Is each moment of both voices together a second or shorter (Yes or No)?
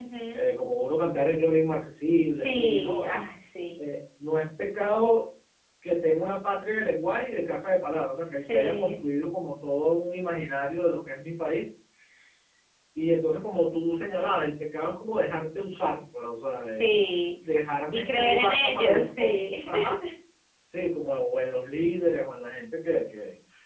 No